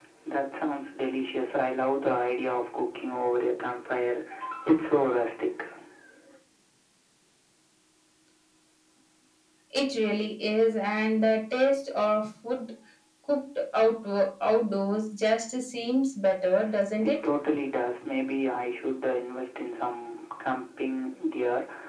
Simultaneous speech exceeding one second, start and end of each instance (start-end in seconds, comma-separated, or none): none